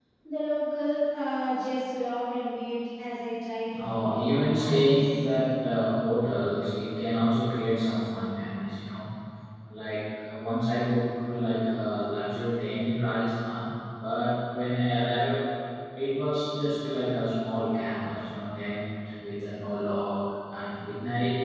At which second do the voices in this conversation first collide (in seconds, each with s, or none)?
3.7 s